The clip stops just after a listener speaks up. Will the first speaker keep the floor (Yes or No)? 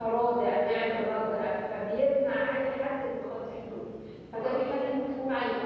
Yes